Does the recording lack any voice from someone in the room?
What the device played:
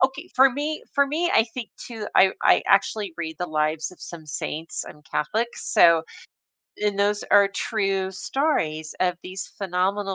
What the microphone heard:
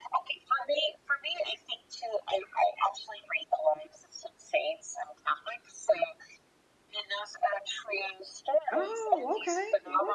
No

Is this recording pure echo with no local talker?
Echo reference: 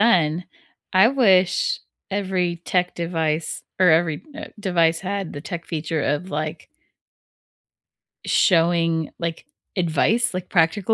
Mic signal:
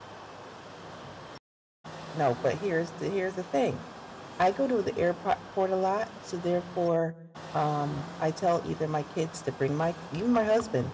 No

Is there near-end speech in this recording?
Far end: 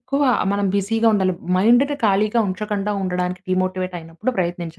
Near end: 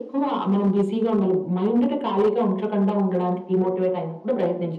No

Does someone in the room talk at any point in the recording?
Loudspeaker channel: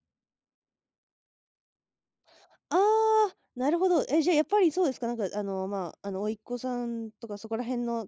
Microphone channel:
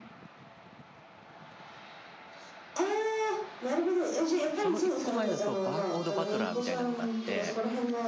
Yes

